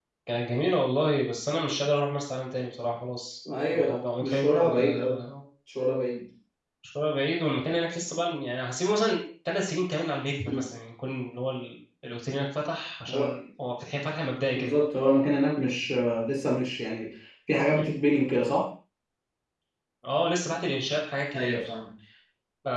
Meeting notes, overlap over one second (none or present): present